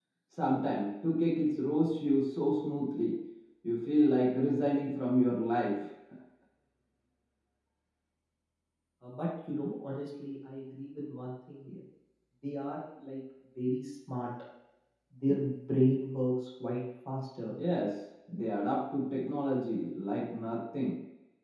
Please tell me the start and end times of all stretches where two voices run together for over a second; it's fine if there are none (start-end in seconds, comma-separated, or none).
none